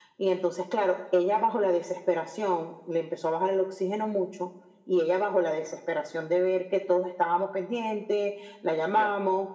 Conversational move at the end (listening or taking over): listening